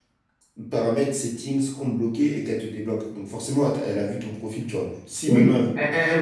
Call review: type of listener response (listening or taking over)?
taking over